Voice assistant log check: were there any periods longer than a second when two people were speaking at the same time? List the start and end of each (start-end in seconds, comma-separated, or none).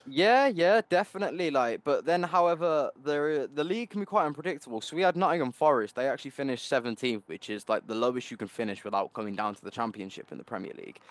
none